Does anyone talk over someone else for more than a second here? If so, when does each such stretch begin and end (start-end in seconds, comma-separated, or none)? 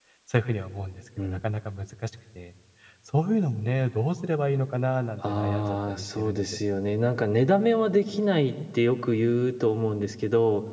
5.2-6.4